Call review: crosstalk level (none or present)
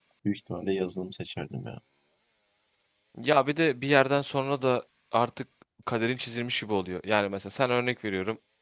none